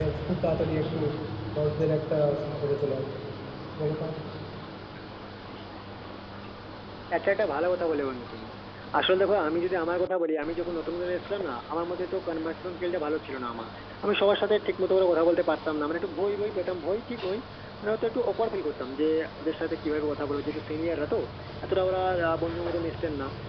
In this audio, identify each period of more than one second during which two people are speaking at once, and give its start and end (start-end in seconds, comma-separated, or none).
none